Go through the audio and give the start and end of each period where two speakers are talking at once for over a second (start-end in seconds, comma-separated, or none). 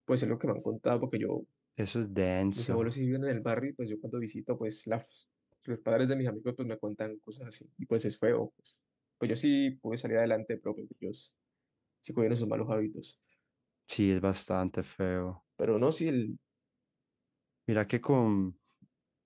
none